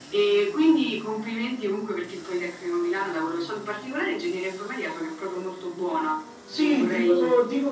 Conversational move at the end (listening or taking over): taking over